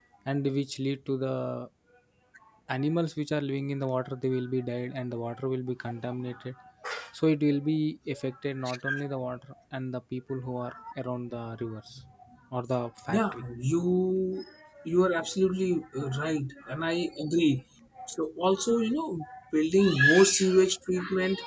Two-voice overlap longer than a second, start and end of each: none

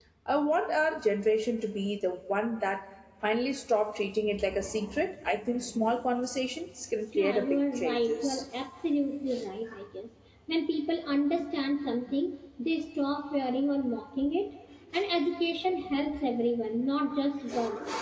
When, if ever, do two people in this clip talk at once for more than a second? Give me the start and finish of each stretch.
7.2-8.4

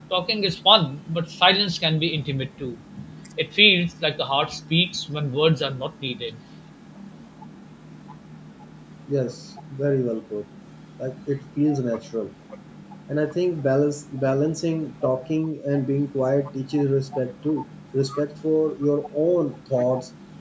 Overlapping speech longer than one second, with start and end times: none

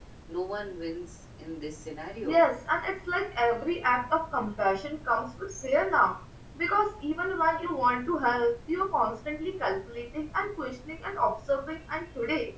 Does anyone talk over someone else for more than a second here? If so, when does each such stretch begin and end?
none

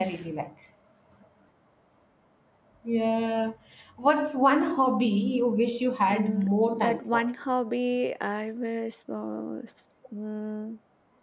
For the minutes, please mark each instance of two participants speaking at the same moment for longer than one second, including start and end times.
6.1-7.3

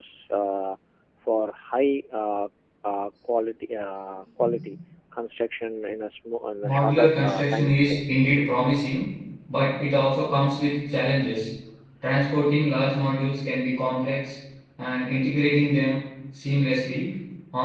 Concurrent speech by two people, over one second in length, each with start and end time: 6.6-8.0

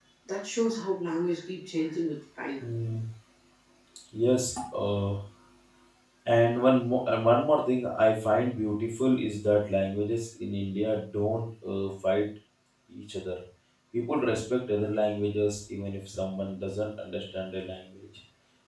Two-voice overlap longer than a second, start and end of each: none

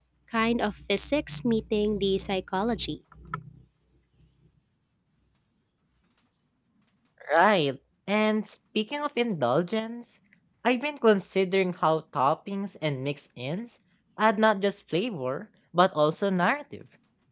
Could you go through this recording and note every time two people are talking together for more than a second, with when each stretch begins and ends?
none

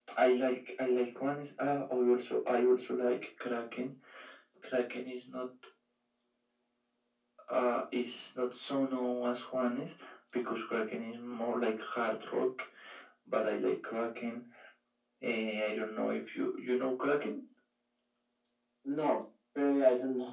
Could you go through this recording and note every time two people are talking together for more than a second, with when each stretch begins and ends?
none

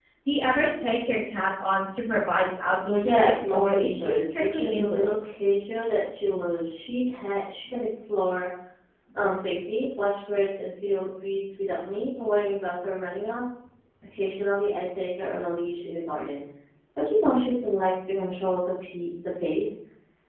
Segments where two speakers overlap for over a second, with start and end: 3.1-5.4

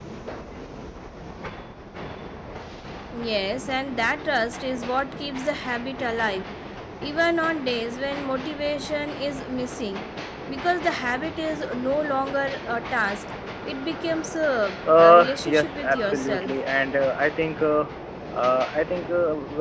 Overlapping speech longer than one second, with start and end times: 15.0-16.5

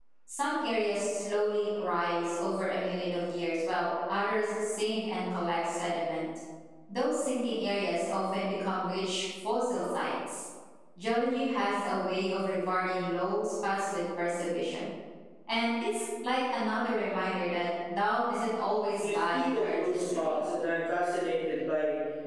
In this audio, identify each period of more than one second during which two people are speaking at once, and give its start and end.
18.9-20.4

